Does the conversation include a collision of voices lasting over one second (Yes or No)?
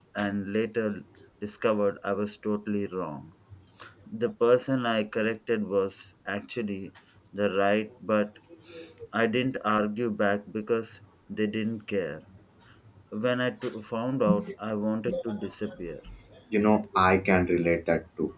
No